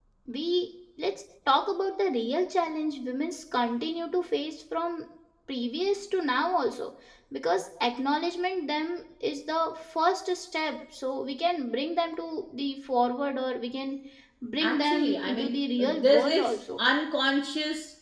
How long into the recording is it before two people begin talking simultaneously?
15 s

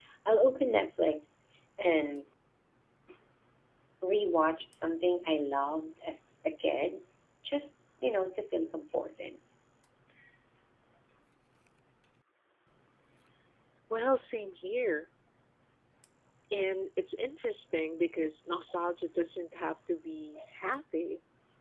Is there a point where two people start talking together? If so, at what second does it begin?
none

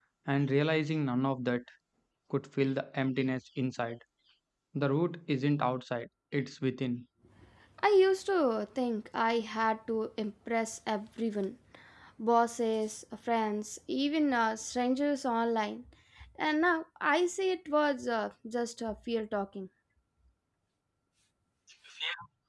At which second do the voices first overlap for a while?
none

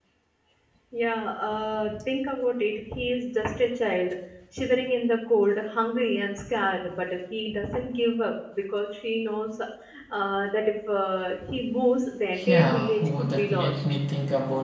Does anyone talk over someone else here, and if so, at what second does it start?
12 s

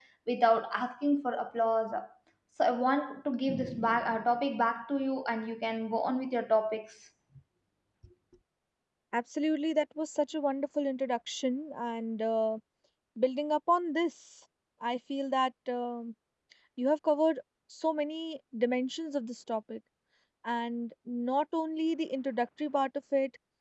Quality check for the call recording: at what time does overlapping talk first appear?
none

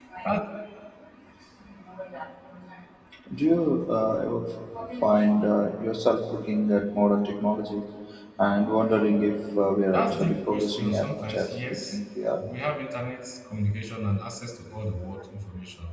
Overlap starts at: 10 s

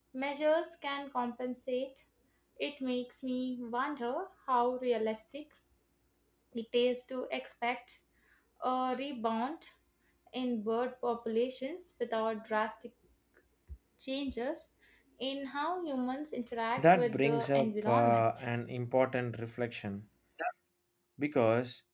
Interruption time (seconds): 17 s

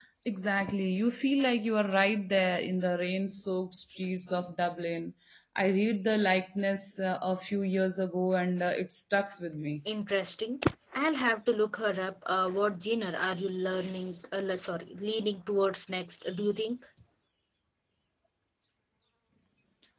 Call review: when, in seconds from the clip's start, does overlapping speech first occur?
none

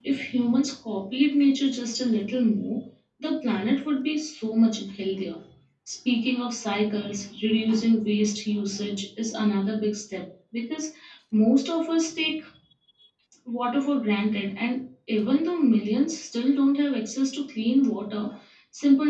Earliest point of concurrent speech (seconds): none

